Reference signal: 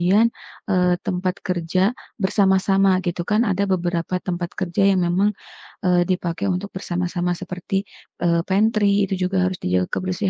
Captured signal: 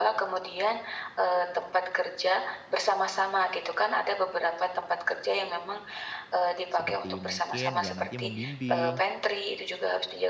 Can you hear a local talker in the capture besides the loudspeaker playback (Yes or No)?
Yes